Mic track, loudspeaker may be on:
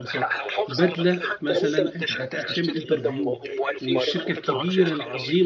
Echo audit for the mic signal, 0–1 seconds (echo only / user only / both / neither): both